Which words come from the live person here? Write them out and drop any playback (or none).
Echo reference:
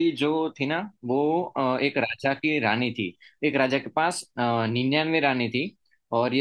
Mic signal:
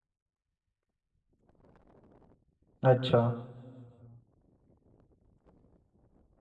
अच्छा